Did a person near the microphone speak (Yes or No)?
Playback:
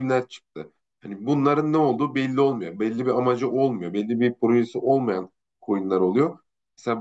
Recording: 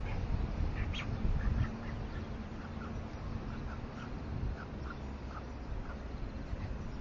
No